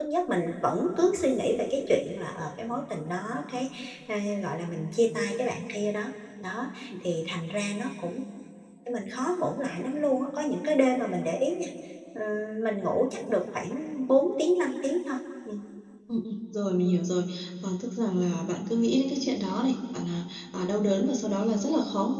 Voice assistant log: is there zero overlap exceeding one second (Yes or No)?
Yes